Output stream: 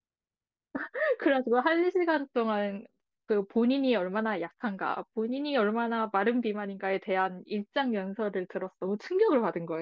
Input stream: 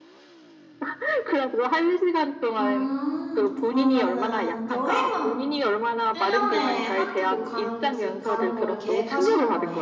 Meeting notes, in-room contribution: present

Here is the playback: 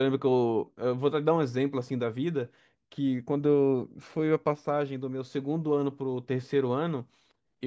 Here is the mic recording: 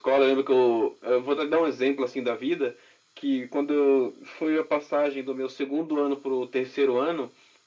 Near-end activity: none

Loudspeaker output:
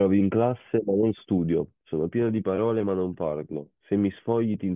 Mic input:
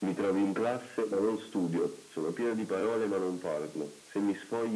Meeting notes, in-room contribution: none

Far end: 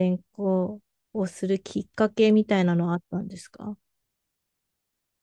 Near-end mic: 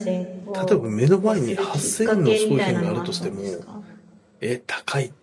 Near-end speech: present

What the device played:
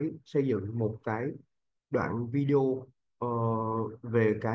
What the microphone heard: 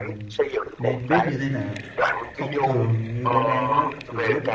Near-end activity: present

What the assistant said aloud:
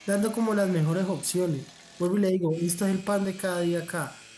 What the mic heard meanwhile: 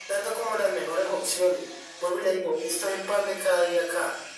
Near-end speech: none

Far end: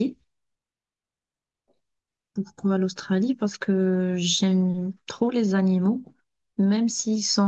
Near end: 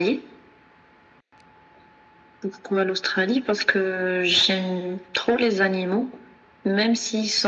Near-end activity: none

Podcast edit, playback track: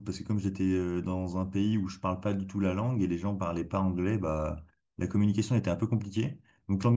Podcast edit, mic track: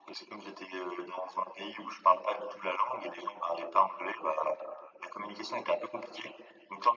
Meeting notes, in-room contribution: none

